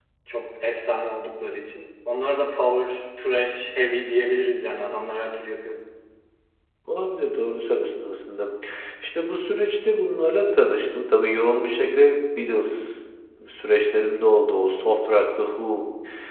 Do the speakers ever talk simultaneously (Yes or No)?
No